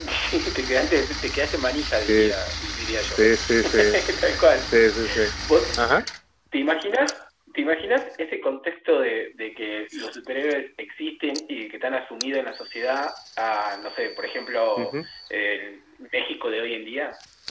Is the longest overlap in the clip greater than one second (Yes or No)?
No